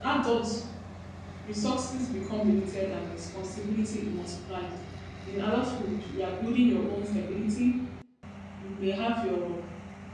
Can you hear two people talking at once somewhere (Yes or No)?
No